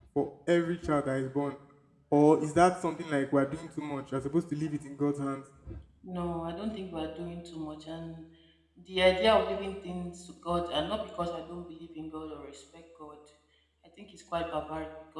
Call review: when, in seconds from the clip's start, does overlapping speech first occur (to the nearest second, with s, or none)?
none